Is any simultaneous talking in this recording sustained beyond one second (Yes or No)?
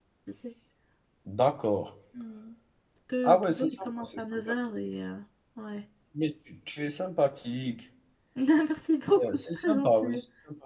Yes